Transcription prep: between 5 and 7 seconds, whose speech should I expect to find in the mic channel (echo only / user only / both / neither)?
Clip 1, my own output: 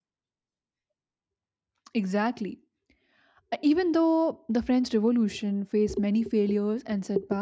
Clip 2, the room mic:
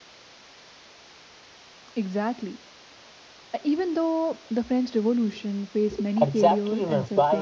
both